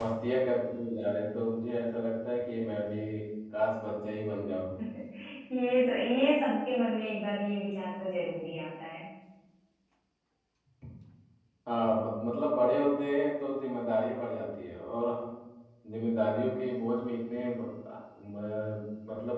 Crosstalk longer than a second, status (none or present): none